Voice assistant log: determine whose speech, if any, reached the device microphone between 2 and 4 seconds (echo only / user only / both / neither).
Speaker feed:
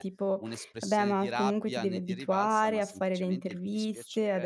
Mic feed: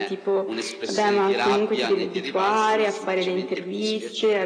echo only